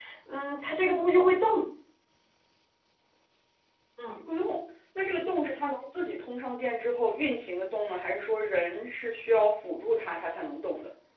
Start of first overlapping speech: none

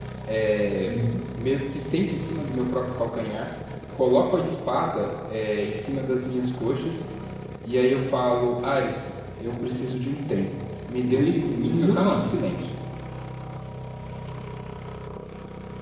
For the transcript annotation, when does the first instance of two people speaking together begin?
11.0 s

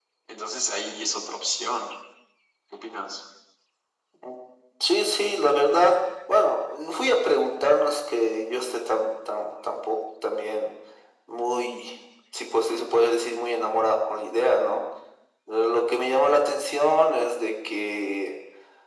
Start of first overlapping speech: none

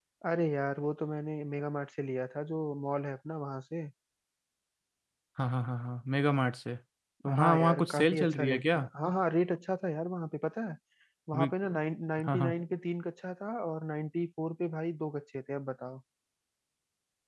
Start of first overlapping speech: 7.3 s

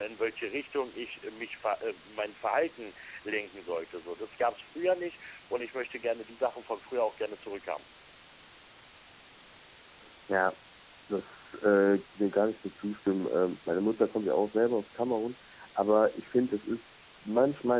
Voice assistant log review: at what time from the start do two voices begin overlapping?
none

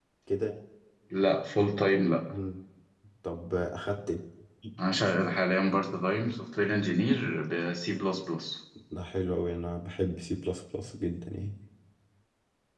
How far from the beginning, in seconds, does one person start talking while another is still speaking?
none

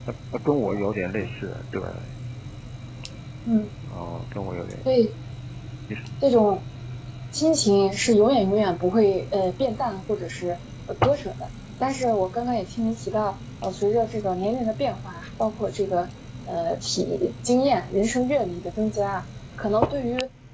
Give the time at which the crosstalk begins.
none

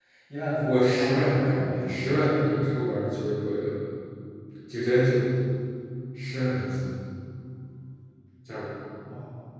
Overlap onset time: 0.7 s

